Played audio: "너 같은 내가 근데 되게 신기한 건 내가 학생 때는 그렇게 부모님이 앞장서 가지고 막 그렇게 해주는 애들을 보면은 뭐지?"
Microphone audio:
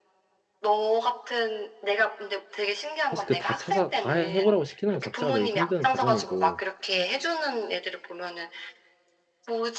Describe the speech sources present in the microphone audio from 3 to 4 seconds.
both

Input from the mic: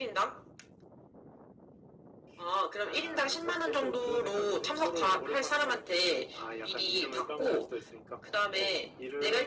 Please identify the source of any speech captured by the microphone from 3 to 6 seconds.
echo only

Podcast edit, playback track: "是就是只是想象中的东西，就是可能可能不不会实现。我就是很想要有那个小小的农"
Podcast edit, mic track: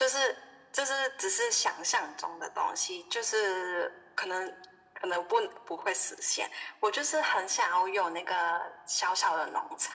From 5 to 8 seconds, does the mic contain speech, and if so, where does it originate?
echo only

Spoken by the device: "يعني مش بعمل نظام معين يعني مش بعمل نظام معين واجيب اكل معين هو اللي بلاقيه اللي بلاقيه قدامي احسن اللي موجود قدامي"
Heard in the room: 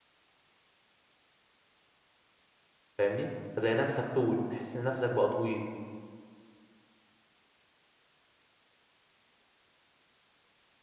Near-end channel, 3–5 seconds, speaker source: user only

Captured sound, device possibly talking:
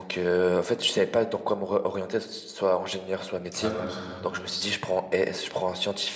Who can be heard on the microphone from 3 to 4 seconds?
both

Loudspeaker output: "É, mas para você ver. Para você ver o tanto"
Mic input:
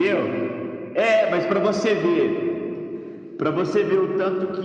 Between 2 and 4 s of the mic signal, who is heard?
echo only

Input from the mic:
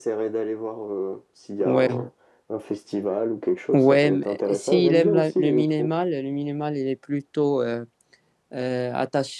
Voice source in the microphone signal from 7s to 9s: user only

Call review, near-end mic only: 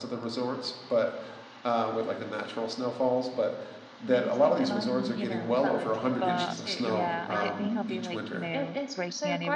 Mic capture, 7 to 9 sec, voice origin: both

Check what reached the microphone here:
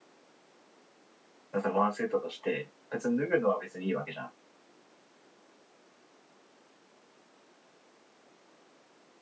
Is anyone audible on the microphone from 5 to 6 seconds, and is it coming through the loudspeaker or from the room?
neither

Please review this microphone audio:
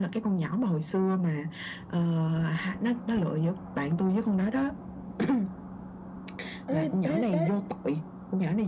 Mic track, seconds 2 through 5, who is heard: echo only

